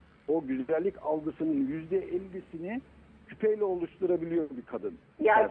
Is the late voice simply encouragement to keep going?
No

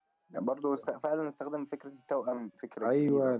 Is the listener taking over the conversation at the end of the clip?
Yes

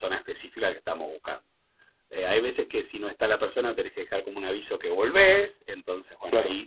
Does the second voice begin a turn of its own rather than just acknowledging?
No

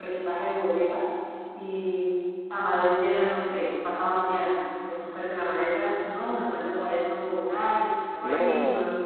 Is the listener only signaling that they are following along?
Yes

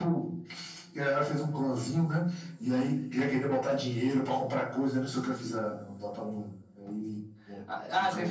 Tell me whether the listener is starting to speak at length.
Yes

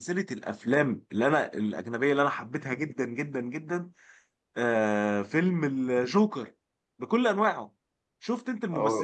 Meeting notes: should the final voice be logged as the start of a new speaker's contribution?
No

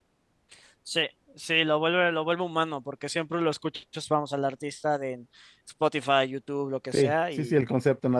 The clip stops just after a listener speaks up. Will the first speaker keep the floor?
No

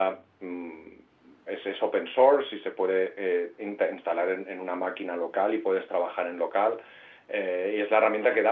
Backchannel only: Yes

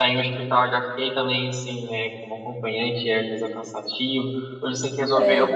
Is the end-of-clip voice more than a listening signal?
No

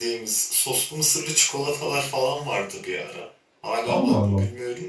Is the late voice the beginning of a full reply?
No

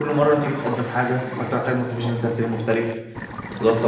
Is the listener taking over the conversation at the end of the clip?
Yes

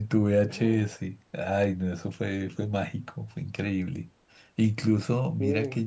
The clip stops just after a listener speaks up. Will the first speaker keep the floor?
Yes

